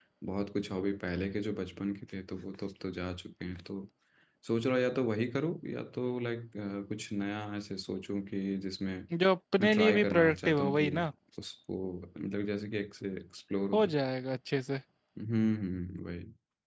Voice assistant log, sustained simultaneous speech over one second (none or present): present